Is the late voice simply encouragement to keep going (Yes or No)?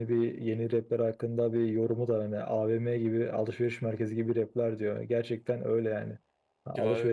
Yes